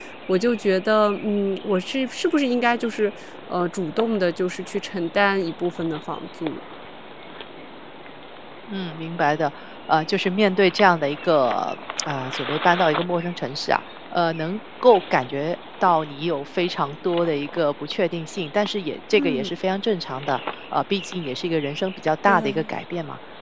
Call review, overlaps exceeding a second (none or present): none